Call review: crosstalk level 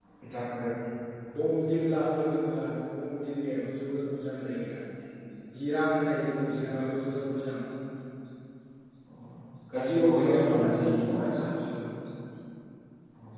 present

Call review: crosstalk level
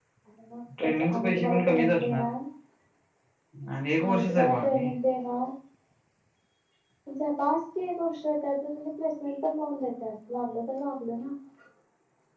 present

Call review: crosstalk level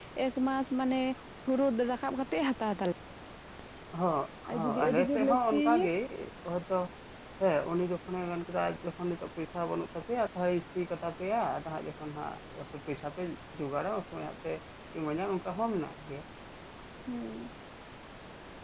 present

